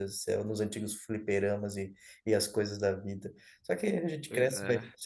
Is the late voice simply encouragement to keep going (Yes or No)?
Yes